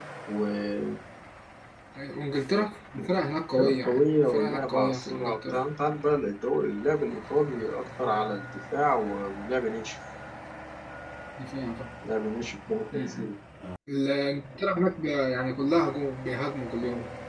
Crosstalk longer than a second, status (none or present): present